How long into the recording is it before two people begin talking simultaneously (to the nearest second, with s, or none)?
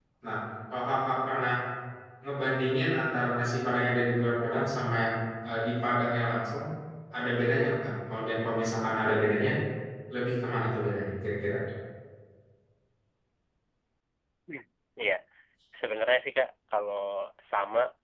none